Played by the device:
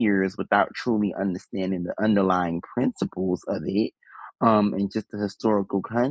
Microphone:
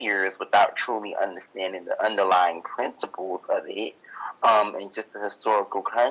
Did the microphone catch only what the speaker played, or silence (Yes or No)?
Yes